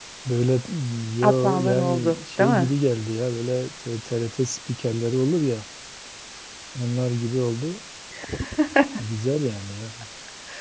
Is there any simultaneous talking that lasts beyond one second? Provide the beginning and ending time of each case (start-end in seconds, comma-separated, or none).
1.2-2.7